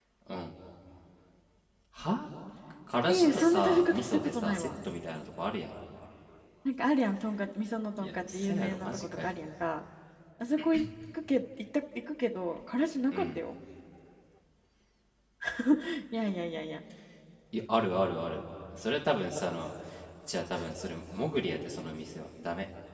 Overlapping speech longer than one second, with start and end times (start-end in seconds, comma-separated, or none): 3.0-4.7, 8.0-9.3